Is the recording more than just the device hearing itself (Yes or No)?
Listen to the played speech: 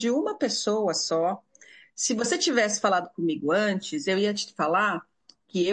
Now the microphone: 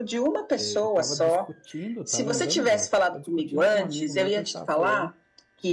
Yes